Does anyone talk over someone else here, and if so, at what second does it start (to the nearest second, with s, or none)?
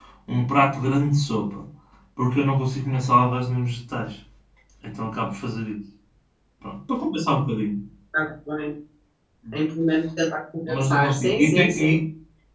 11 s